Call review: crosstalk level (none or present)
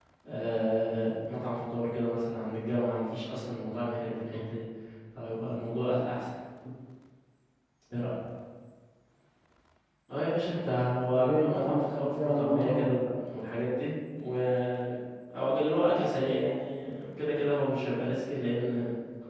present